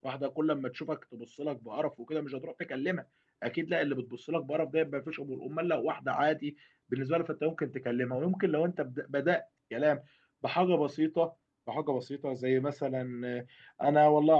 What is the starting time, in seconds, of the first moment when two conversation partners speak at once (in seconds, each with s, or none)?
none